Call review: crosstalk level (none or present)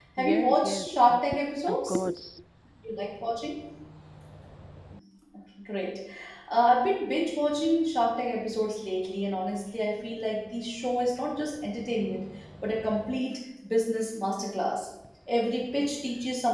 present